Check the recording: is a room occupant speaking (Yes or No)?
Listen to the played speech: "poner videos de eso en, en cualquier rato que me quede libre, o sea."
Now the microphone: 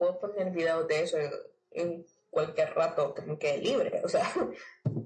No